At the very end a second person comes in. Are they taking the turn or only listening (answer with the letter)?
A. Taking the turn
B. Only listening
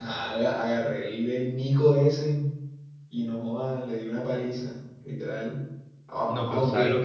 A